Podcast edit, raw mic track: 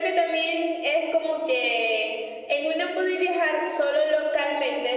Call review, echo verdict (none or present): present